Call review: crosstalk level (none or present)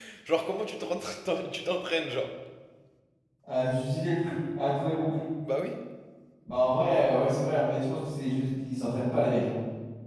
none